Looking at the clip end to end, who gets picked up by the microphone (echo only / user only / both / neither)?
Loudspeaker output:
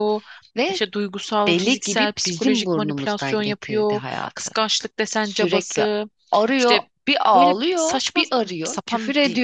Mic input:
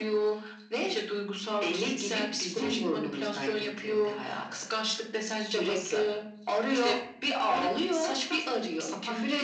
echo only